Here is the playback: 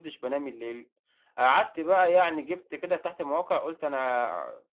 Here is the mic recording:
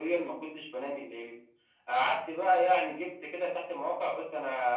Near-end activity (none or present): none